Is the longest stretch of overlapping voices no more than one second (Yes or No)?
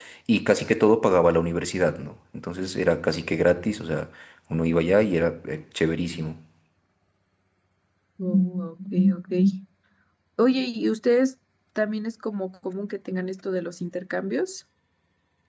Yes